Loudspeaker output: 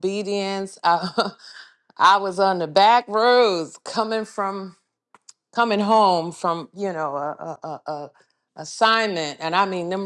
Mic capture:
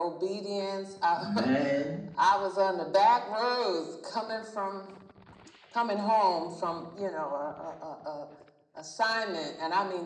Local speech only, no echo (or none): Man,